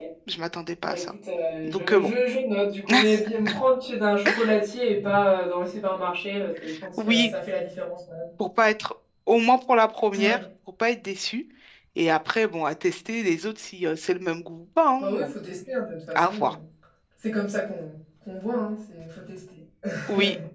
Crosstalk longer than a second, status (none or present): none